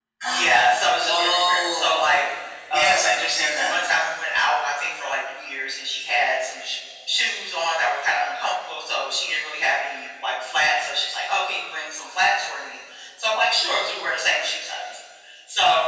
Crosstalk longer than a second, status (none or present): present